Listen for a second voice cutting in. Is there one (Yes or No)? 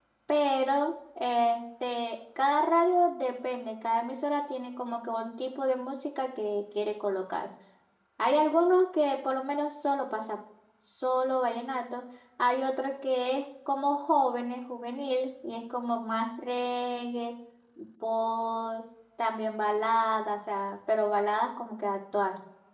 No